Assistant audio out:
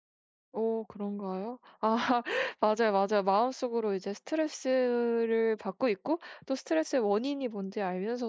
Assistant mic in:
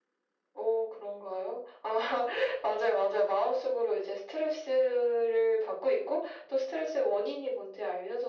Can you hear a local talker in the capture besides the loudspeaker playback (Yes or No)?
No